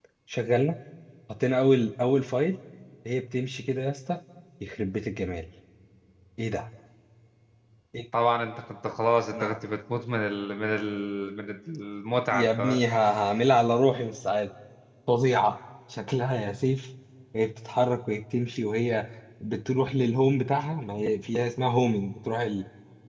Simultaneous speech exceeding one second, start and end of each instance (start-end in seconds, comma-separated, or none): none